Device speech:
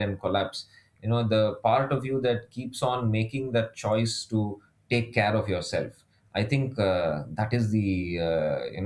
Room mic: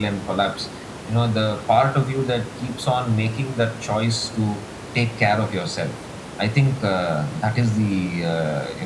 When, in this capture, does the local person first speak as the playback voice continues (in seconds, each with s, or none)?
none